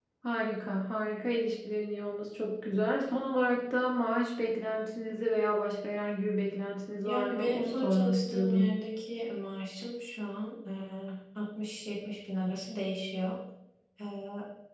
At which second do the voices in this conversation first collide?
7 s

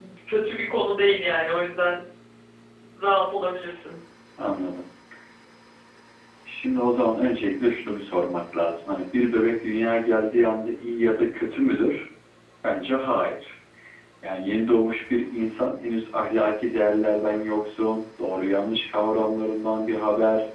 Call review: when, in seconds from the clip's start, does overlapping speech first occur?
none

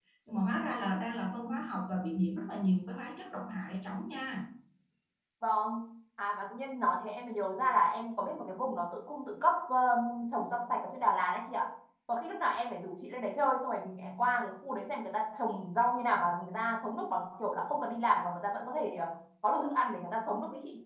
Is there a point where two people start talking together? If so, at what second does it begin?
none

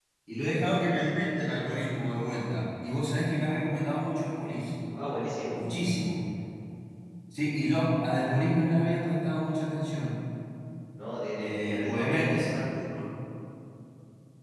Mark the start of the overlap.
11 s

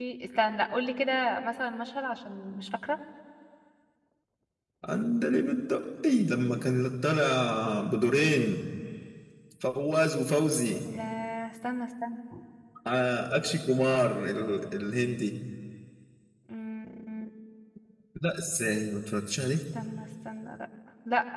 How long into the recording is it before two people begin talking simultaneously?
none

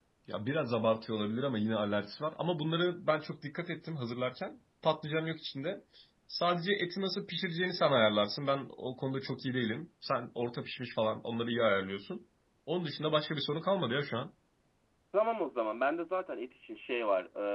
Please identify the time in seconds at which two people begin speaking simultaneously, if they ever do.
none

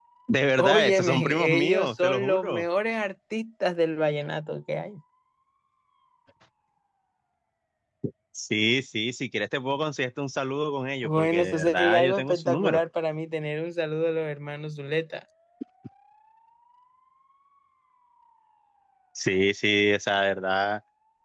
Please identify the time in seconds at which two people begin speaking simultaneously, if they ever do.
1 s

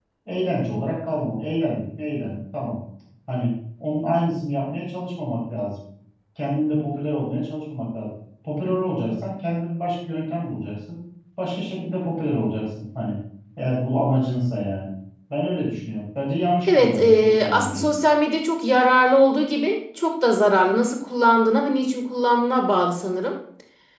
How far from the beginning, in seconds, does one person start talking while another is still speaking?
17 s

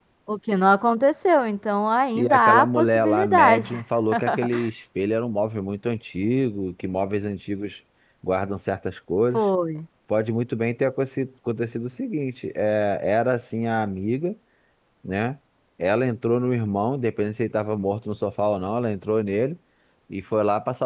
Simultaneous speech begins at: 2 s

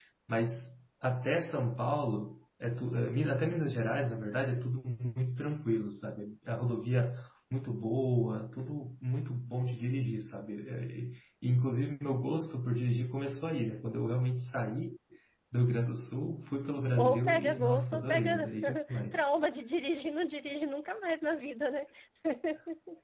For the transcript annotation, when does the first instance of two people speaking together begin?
17 s

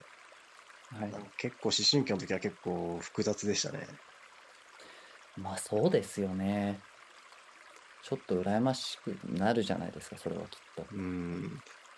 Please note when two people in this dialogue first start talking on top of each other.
none

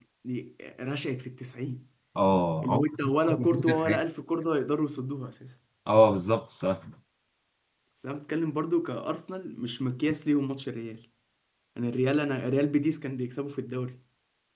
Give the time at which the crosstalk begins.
3 s

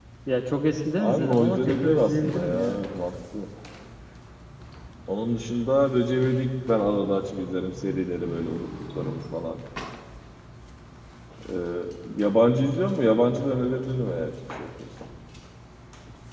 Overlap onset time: 1 s

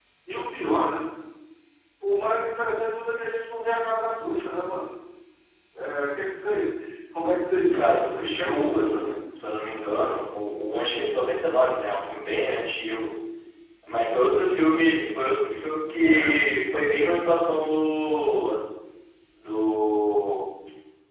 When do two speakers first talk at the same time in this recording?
8 s

